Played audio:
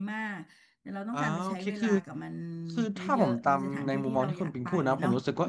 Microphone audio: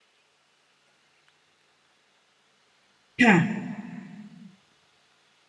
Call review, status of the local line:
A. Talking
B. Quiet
A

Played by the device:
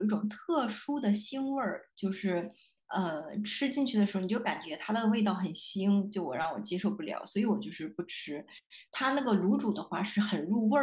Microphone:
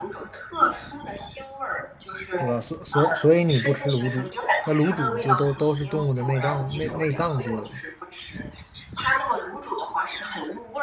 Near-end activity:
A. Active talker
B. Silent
A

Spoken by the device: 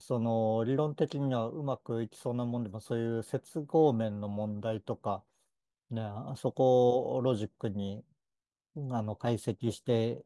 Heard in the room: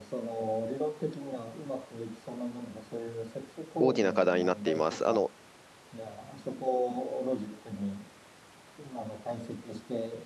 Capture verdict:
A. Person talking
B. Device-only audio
A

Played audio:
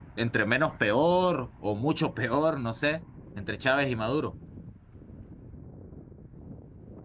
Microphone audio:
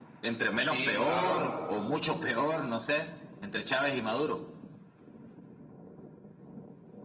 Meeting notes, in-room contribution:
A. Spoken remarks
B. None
A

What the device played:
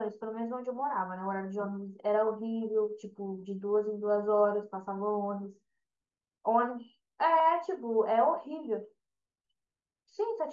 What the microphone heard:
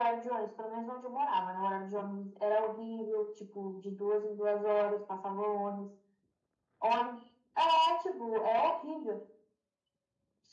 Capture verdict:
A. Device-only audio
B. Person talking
A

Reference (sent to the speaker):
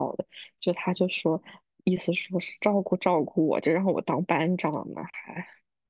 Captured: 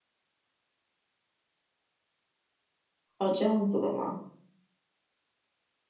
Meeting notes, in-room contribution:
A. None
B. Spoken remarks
B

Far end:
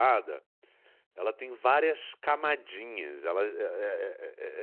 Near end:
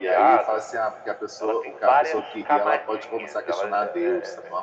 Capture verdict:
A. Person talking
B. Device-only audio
A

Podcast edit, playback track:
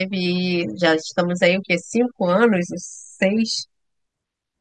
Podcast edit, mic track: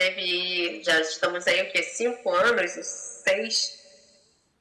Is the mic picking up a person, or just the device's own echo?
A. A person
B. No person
B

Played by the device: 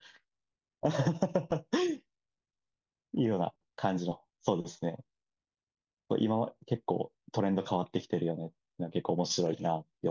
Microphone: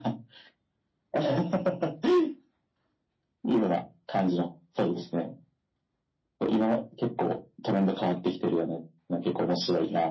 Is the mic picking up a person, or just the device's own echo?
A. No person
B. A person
A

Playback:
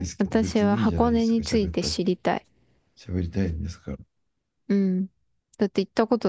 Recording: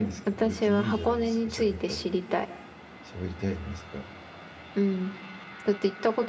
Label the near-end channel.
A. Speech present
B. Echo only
B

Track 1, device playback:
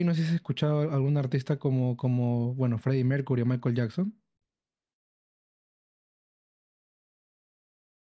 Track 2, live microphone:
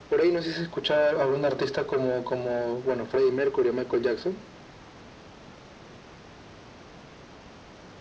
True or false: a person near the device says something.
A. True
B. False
B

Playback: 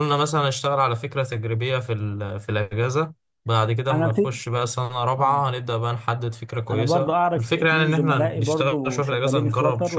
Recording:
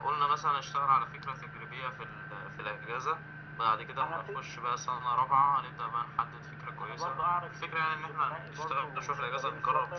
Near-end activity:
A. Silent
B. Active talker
A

